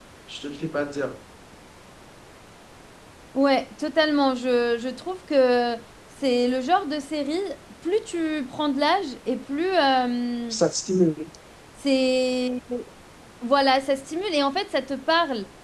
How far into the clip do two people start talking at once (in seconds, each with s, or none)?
none